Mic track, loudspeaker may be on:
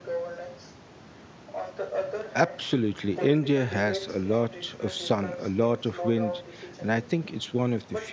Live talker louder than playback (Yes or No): Yes